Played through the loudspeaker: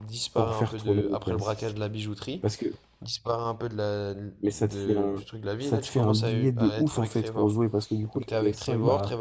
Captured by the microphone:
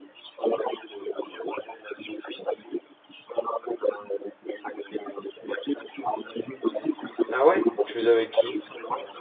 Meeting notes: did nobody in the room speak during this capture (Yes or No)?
No